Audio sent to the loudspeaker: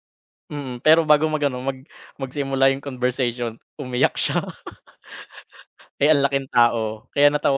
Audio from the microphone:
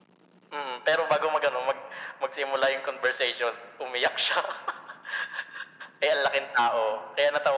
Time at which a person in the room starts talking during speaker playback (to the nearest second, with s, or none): none